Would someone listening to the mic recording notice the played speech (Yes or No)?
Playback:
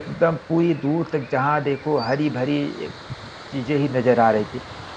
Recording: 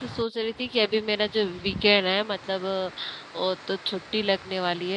No